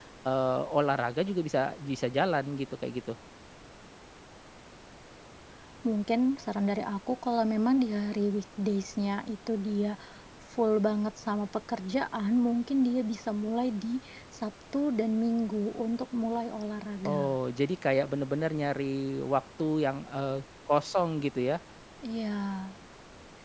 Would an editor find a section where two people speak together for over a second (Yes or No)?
No